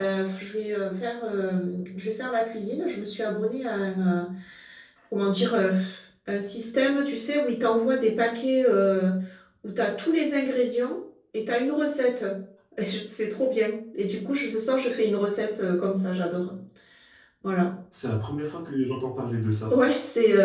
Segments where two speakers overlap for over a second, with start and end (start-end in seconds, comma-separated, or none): none